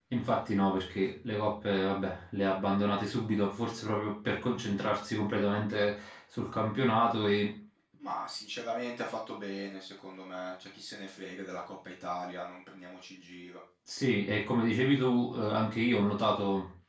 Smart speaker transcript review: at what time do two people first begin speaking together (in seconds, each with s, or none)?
none